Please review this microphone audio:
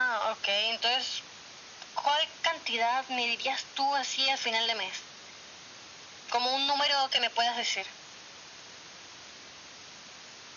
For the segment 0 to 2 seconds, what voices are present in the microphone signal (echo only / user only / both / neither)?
echo only